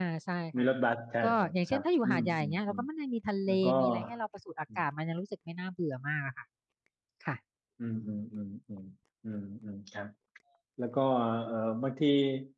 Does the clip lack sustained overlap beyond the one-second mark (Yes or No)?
No